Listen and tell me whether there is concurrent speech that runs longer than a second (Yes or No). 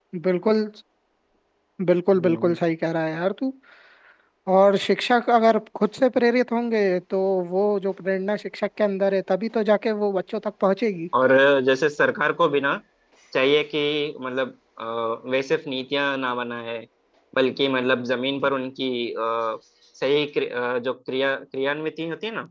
No